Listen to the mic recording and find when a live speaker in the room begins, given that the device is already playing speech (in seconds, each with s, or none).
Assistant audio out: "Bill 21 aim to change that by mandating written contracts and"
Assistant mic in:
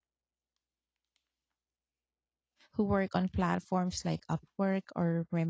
2.7 s